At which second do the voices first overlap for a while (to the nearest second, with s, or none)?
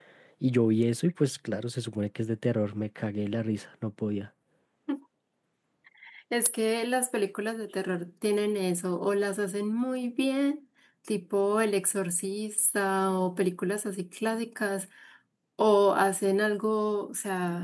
none